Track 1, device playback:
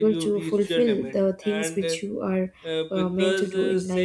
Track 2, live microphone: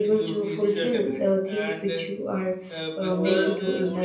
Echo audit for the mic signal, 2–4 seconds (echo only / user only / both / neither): both